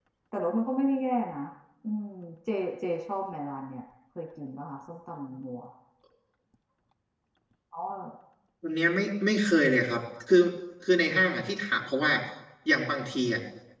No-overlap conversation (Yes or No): Yes